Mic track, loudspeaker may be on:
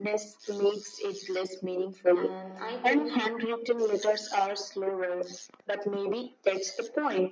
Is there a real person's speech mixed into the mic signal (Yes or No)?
Yes